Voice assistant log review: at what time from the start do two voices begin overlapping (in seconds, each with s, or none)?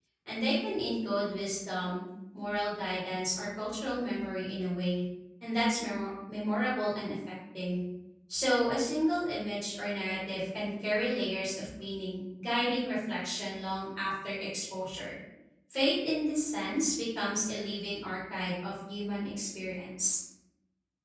none